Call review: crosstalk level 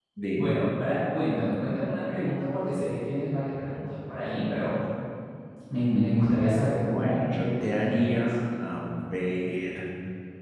present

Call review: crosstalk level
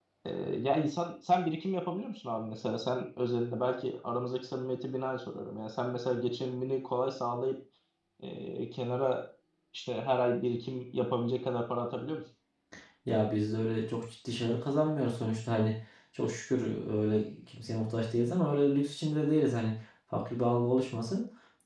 none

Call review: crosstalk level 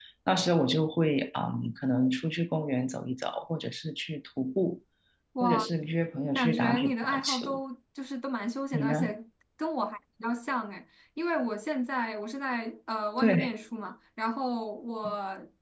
present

